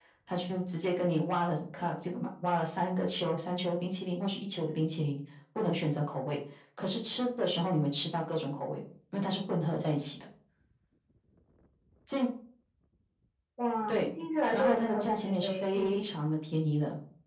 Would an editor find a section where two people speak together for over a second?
Yes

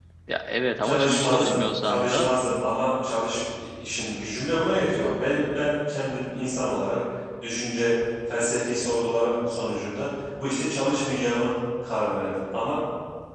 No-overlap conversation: No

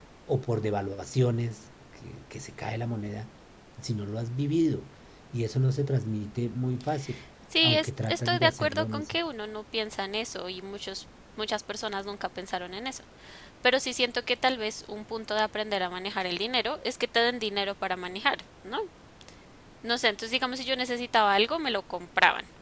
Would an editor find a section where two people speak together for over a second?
Yes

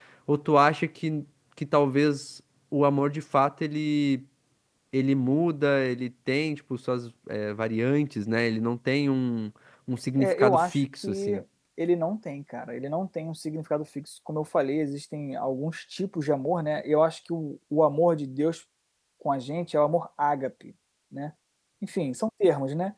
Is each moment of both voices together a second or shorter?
No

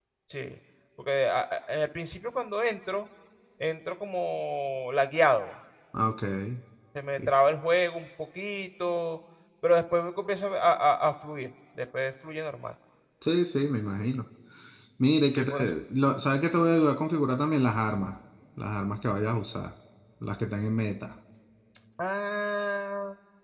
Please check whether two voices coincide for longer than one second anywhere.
No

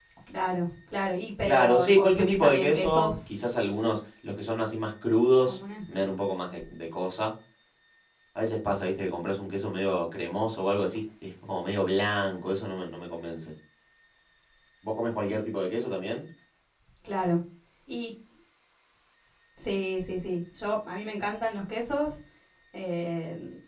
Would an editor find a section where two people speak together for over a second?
Yes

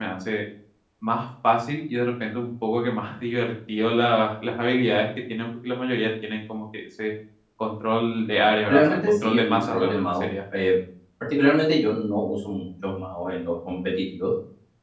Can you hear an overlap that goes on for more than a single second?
Yes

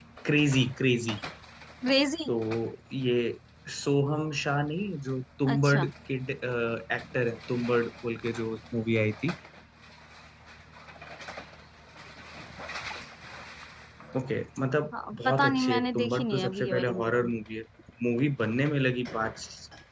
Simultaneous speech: Yes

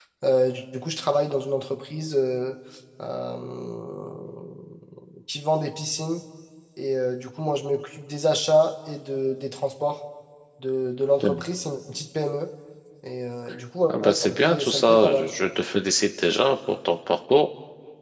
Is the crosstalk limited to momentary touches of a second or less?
No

